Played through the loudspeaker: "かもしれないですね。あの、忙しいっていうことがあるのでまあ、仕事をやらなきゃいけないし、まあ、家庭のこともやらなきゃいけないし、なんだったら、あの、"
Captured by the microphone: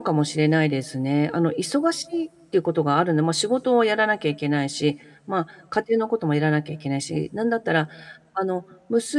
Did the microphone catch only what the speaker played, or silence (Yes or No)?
Yes